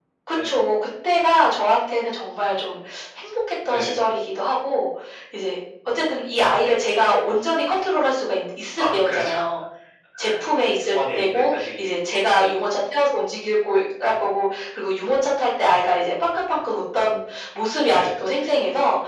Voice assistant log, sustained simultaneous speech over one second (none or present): present